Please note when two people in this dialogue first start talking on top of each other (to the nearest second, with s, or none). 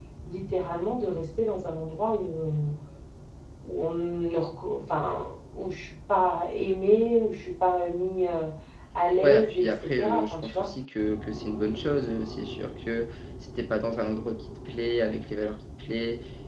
9 s